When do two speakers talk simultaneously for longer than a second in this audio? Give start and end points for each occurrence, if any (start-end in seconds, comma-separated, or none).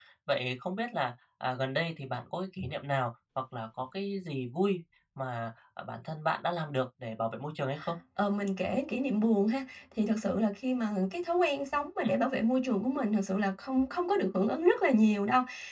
none